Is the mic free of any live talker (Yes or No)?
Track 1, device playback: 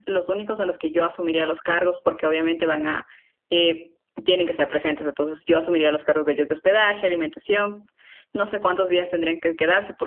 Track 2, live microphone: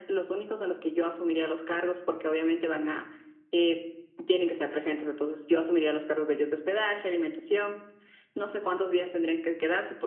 Yes